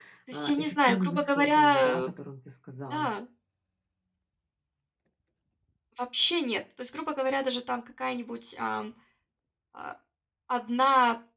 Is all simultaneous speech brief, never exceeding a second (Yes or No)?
No